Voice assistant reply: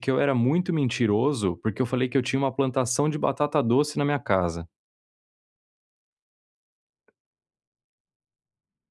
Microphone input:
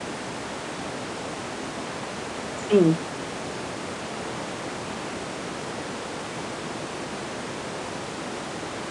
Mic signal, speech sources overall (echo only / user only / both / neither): user only